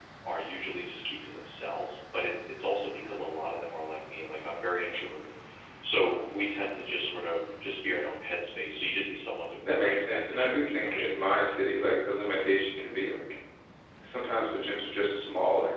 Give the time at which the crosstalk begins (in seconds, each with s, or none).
9.6 s